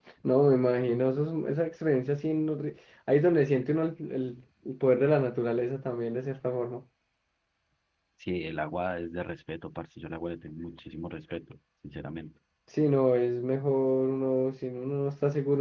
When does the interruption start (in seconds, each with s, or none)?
none